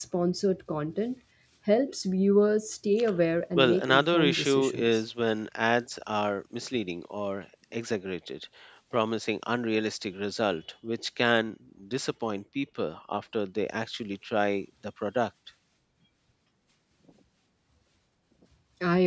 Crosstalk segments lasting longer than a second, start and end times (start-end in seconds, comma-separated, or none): 3.6-5.0